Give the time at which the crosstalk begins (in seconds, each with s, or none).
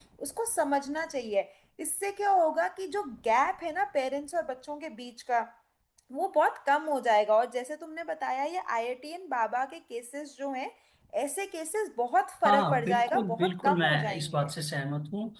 12.4 s